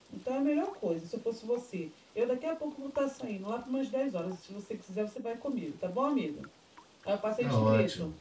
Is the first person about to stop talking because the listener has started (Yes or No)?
Yes